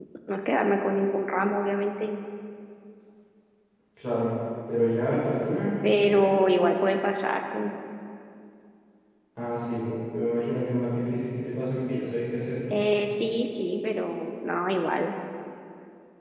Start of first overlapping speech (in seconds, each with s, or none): none